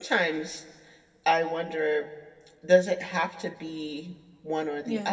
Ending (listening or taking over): listening